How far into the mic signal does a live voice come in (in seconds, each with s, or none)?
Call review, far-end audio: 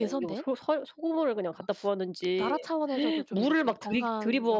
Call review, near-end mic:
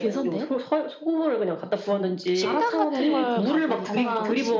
1.8 s